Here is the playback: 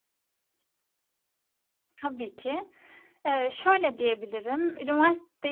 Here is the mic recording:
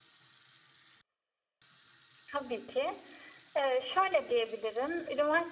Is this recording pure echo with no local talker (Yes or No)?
Yes